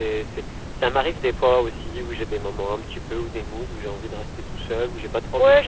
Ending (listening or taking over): taking over